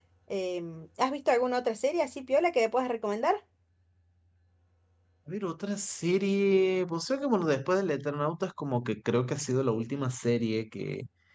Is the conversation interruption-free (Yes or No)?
Yes